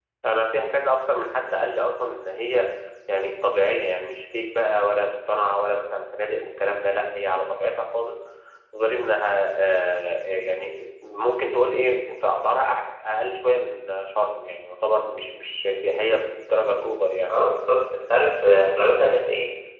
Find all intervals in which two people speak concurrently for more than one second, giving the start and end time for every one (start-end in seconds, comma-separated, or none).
none